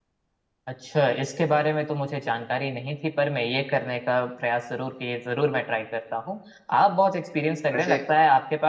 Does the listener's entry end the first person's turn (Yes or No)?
No